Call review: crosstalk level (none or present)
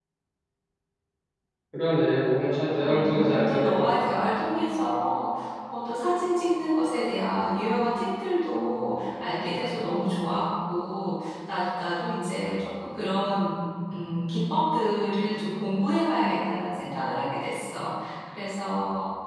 present